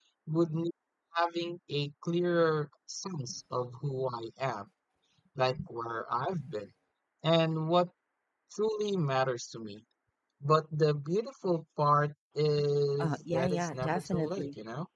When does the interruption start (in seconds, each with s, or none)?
13.0 s